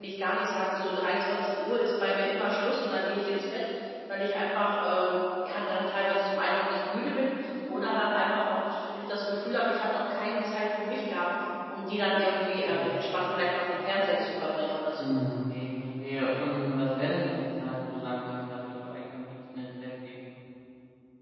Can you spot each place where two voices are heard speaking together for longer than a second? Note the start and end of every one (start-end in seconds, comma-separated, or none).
none